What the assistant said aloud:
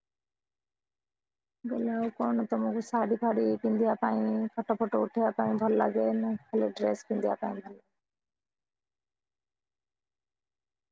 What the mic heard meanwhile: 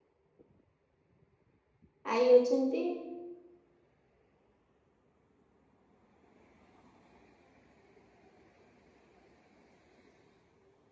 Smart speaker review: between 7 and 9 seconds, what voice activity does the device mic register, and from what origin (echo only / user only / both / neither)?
neither